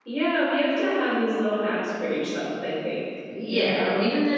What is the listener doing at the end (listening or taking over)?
taking over